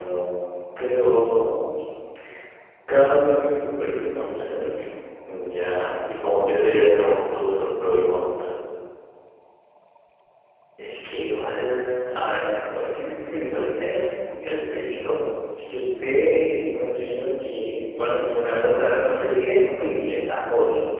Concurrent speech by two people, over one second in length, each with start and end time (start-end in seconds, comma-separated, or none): none